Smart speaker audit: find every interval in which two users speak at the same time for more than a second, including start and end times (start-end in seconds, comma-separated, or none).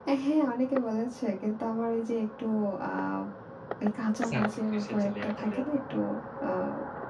4.3-5.9